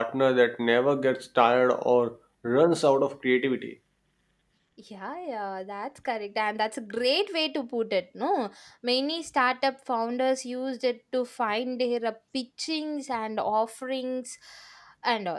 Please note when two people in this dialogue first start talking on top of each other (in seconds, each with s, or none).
none